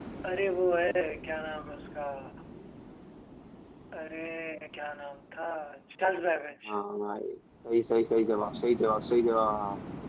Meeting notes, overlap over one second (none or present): none